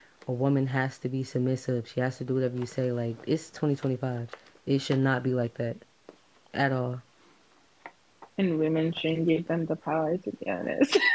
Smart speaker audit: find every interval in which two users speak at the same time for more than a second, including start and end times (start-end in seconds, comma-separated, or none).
none